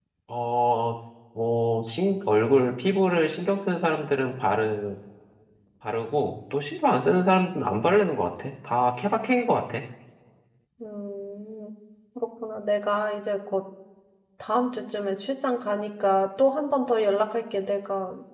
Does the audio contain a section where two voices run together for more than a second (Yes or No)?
No